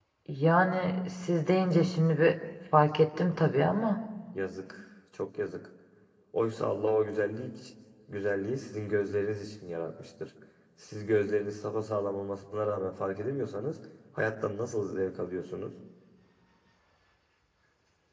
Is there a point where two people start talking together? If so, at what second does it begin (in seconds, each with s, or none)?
none